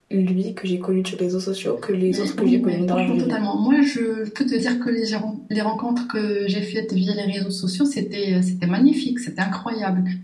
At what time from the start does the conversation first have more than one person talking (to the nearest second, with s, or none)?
2 s